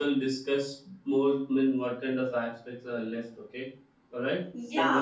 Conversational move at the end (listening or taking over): taking over